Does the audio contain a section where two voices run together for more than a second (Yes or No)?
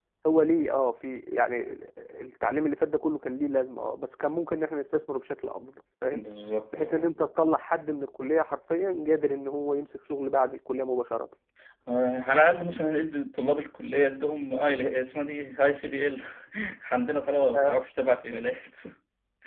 No